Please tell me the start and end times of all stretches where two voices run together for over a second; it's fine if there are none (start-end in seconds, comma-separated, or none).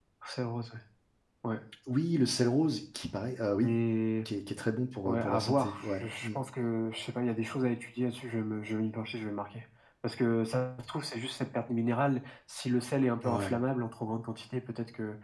5.0-6.3